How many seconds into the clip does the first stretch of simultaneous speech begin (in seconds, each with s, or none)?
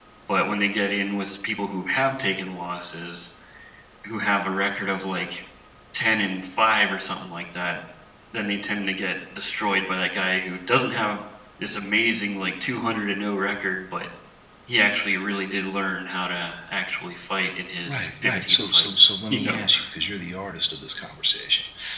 17.9 s